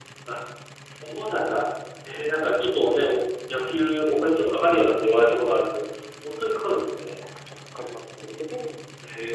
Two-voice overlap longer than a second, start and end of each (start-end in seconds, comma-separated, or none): none